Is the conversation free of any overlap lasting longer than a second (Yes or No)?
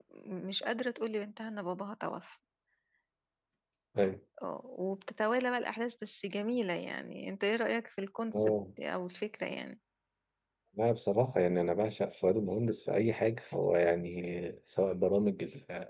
Yes